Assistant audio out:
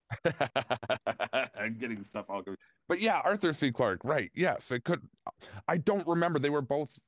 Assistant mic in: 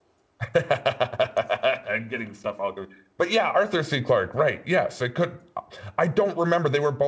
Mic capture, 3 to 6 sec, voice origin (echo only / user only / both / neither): echo only